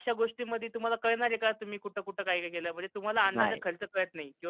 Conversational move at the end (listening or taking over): listening